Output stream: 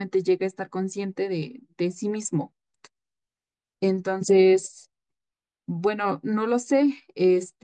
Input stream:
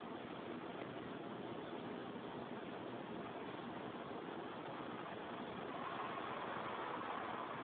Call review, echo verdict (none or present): none